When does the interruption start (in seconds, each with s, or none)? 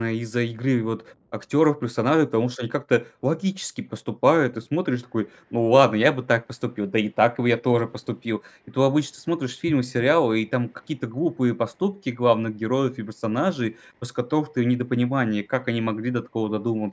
none